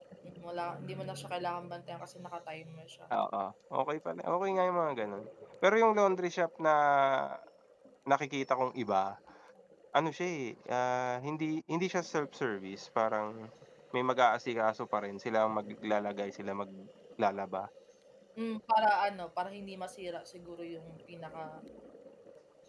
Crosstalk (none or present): none